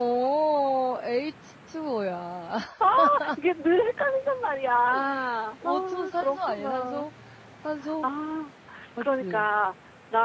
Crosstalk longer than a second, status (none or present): present